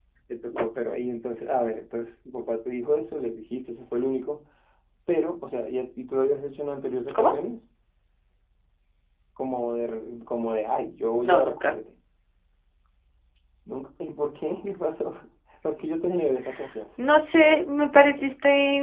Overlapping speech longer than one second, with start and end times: none

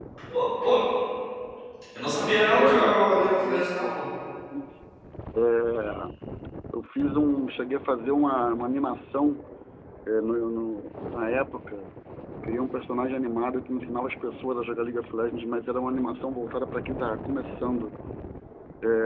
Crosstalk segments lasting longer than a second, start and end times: 2.6-4.0

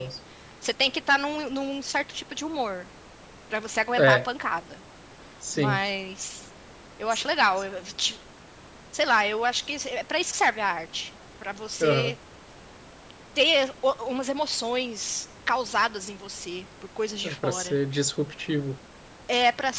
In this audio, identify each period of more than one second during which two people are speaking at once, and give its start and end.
none

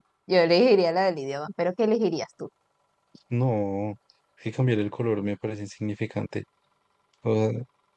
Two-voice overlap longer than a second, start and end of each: none

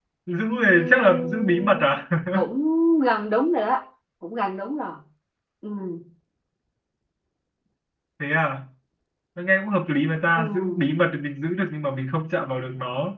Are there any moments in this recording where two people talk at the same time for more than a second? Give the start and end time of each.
0.6-1.9

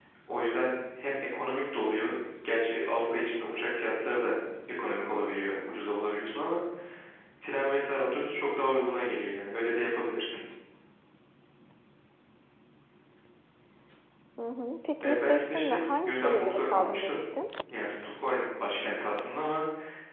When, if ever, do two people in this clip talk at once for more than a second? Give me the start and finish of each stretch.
15.0-17.2

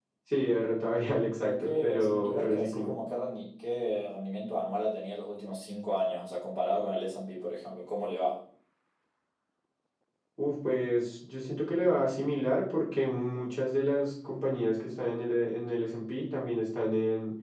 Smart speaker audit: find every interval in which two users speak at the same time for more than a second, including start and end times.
1.4-3.0

